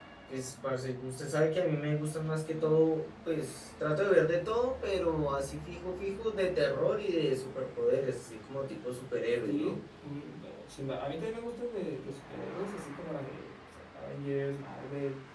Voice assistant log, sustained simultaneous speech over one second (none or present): none